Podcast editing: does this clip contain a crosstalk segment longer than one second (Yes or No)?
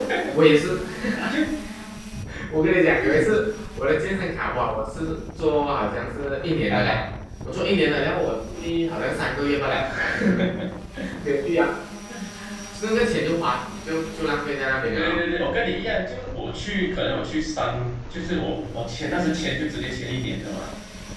No